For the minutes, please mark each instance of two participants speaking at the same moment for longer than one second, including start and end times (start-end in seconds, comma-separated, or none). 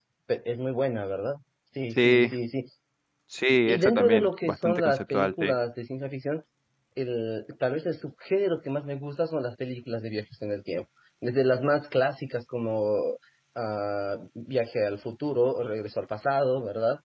3.7-5.6